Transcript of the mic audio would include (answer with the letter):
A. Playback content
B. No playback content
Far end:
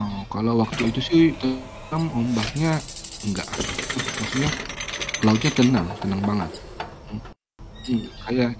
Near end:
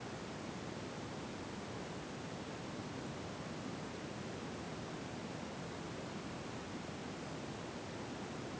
B